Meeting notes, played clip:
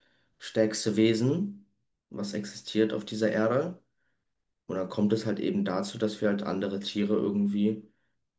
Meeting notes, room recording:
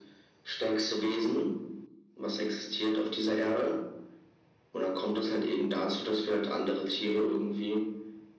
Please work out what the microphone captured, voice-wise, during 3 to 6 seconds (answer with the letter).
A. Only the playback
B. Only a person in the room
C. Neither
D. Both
A